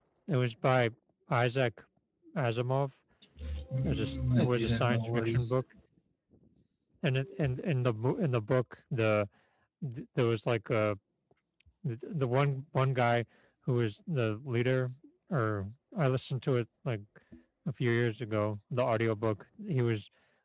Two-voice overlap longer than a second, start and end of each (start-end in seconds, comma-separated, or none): 3.8-5.6